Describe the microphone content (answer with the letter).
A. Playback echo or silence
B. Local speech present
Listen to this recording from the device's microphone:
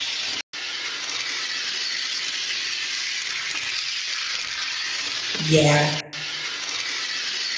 B